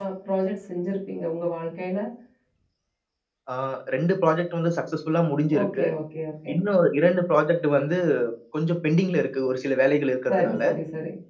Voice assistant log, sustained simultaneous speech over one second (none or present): none